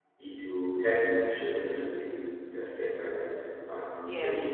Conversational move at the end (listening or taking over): taking over